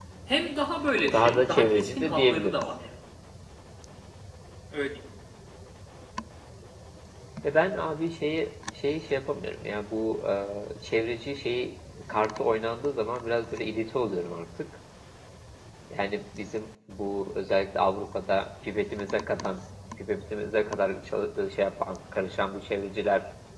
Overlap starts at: 1.1 s

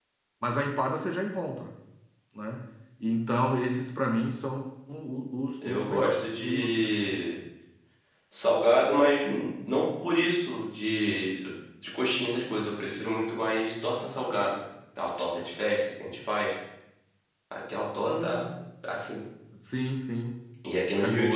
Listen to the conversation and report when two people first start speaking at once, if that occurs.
5.7 s

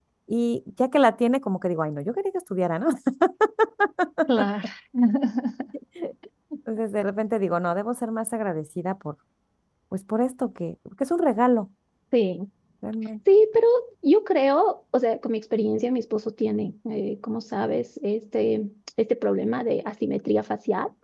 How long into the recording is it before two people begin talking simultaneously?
none

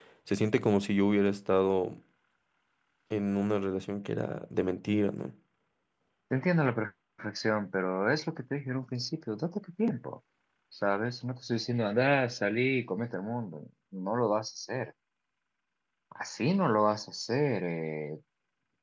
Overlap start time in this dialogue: none

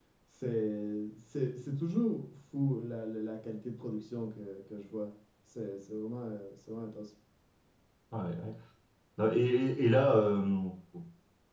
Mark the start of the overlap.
none

